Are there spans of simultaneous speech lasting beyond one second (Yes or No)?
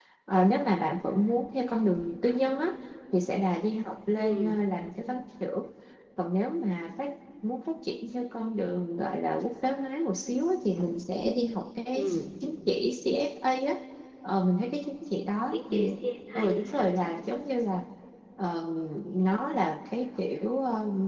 No